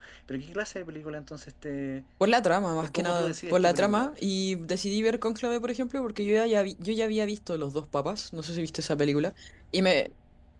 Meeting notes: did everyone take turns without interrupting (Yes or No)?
No